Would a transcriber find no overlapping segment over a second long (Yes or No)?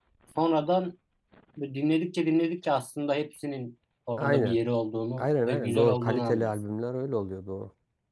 No